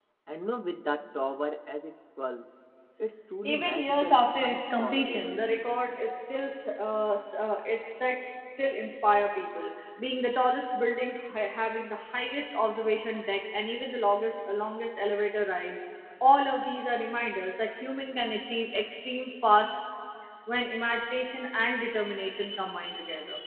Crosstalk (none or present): present